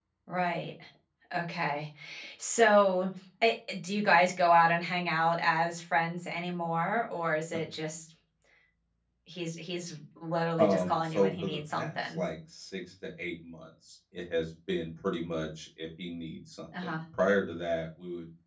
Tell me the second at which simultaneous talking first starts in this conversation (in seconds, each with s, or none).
10.6 s